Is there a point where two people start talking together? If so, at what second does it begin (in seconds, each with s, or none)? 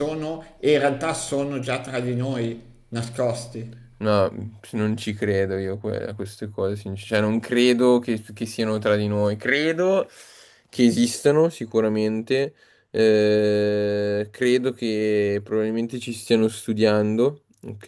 none